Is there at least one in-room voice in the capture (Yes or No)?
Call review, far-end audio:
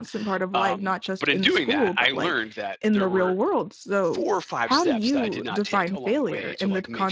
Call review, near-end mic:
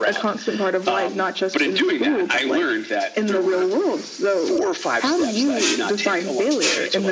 No